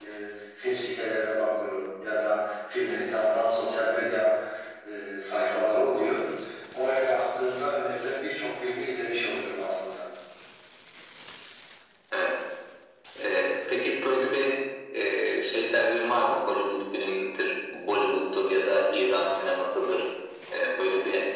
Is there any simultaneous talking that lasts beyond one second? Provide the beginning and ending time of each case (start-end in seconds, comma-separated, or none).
none